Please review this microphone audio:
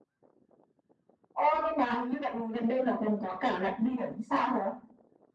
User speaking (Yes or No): No